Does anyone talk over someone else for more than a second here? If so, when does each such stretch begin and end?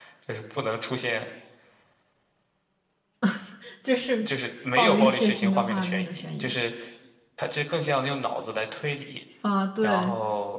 4.8-6.6

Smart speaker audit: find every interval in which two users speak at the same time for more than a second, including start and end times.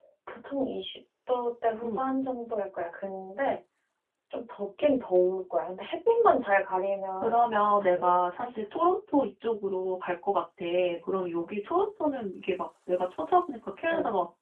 7.2-8.5

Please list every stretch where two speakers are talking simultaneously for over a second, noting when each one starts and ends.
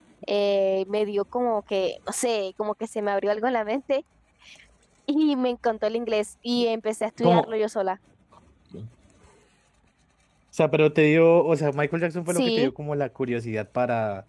none

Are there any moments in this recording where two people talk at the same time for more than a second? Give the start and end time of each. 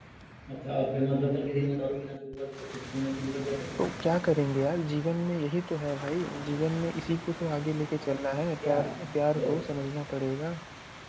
none

